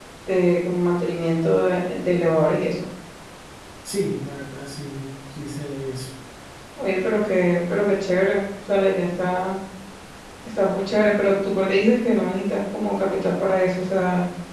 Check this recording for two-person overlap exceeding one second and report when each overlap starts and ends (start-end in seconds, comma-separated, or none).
none